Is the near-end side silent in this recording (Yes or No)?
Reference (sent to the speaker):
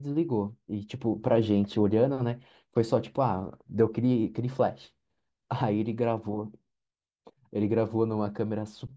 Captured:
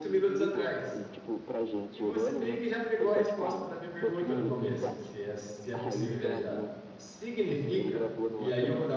No